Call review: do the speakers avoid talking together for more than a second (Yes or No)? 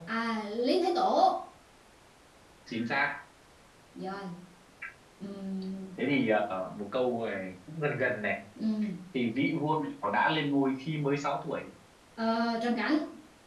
Yes